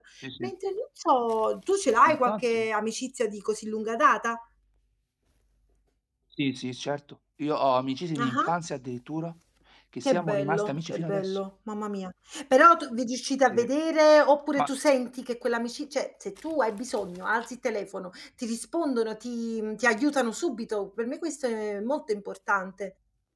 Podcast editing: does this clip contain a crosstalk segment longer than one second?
Yes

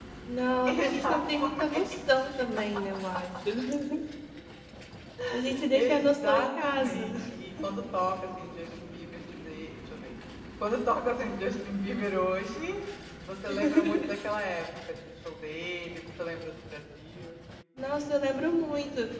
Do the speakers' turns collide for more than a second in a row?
Yes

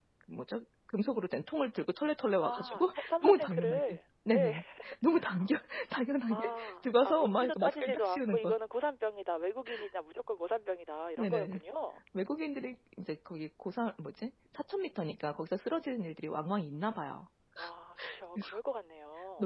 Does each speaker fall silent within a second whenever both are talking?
No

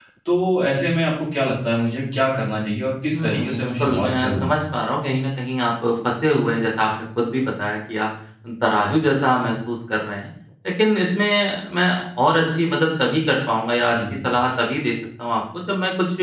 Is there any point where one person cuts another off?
Yes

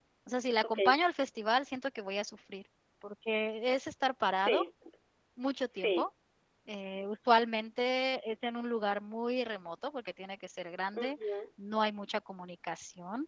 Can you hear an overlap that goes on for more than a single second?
No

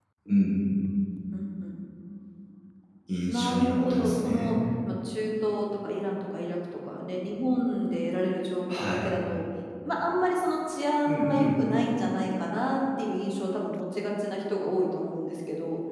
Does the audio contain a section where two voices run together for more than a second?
Yes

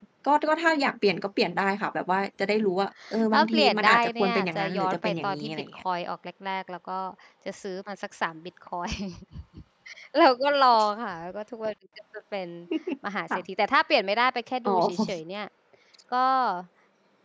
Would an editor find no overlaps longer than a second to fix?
No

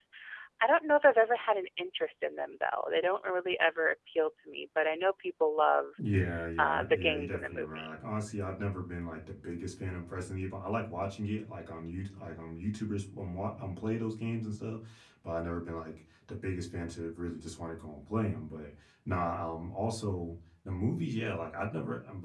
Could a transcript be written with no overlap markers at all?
No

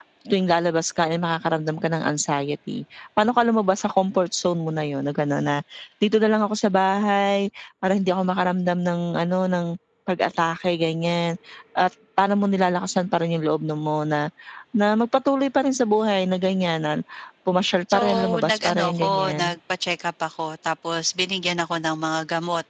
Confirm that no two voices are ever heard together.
No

